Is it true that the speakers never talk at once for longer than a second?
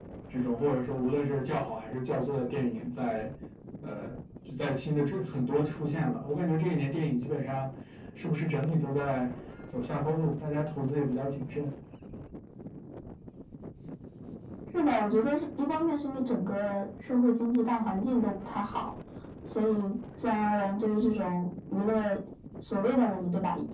Yes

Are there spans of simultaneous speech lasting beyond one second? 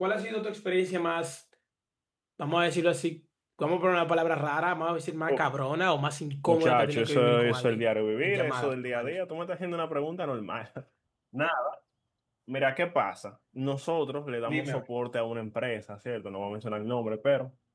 Yes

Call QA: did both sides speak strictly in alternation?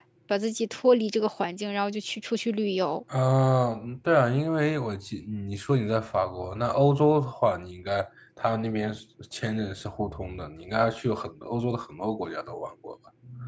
Yes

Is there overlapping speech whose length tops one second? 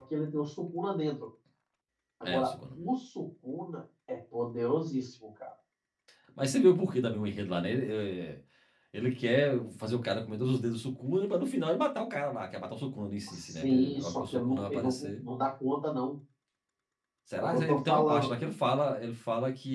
Yes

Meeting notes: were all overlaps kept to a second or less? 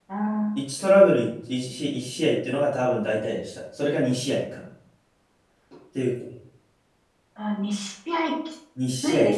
Yes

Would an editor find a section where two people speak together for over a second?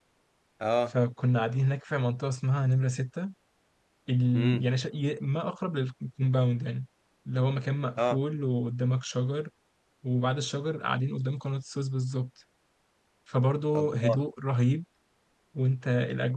No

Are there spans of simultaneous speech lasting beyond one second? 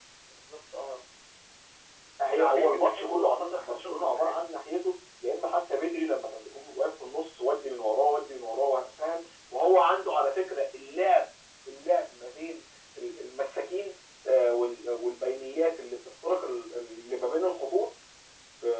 Yes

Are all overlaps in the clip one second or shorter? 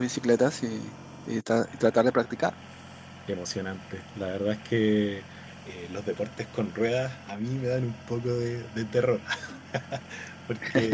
Yes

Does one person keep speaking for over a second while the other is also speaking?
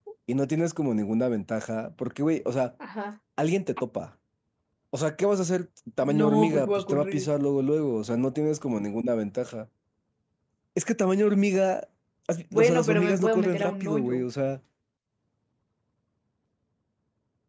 Yes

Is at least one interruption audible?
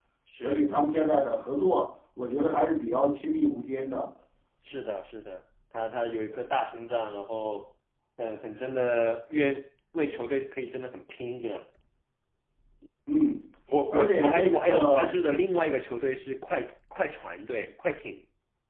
Yes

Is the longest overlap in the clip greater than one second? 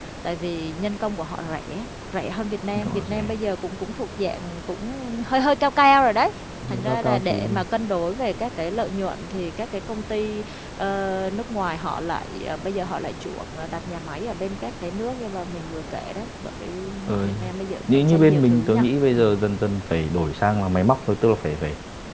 Yes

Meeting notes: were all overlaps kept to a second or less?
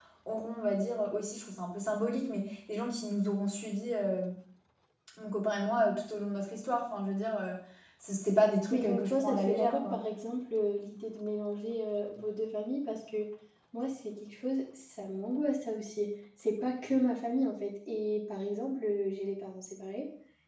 No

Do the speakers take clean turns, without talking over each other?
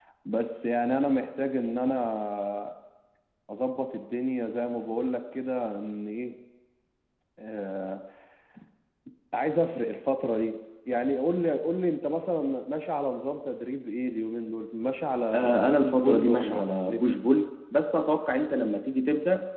No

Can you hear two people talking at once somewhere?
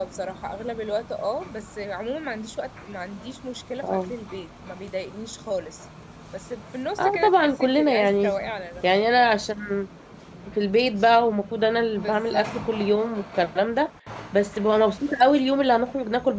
Yes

